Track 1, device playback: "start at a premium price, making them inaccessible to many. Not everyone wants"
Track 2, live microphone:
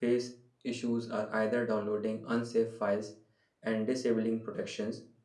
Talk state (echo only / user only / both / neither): user only